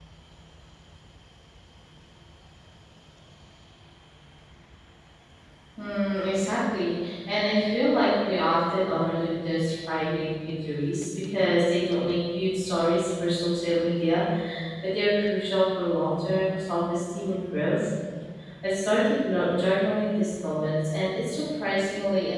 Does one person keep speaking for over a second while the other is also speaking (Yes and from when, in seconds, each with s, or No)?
No